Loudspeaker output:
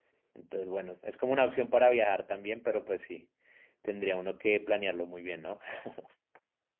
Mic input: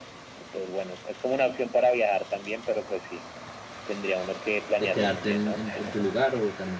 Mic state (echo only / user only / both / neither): both